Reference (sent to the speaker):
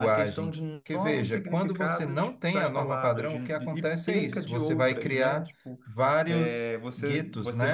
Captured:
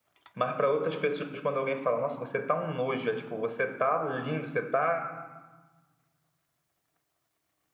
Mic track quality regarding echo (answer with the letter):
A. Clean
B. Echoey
A